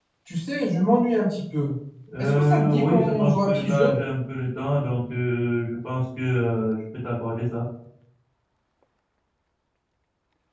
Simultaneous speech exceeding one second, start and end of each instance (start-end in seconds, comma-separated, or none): 2.2-3.9